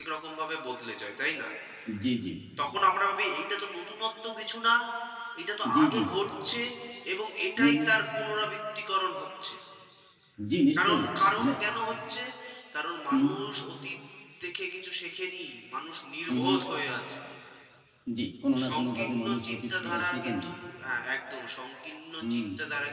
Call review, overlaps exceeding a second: present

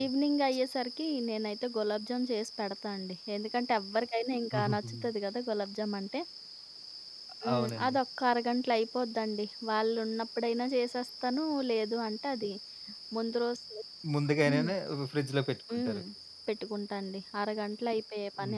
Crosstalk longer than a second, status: none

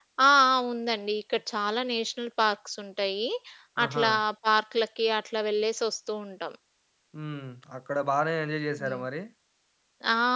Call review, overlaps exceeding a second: none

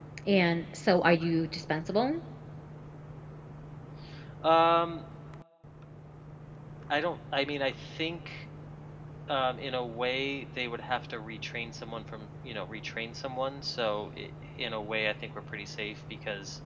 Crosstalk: none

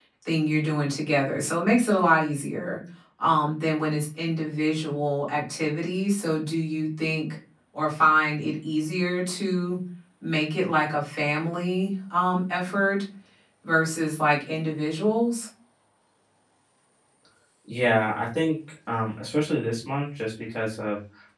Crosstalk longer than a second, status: none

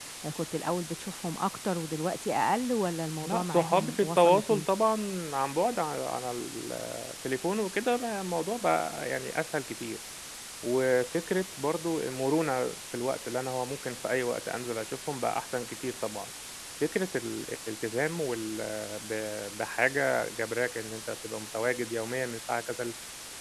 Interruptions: present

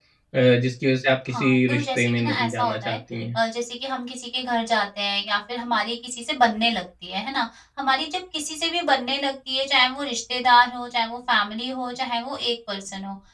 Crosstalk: present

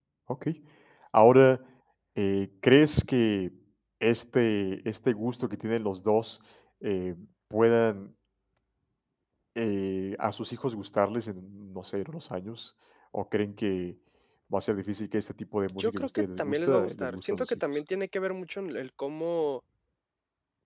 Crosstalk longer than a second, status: present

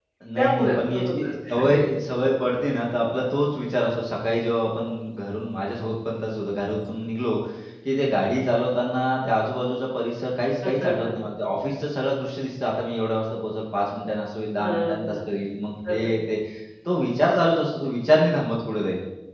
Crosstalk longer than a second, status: present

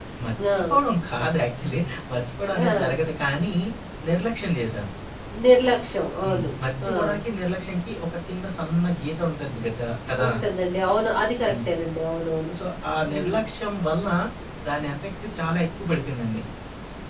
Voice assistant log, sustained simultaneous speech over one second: none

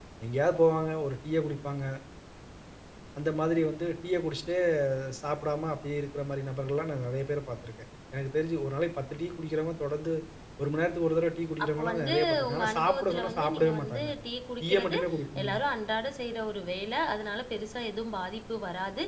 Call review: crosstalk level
present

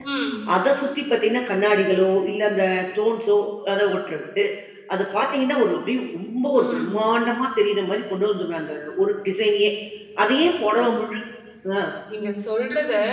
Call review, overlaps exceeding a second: none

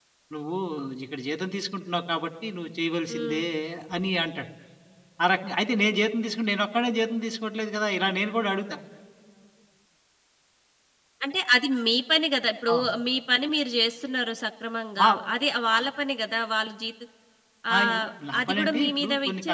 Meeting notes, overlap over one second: present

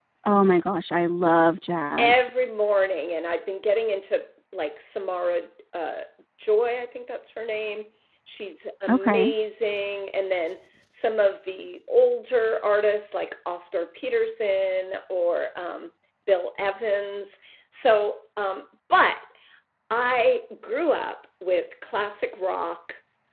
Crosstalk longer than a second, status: none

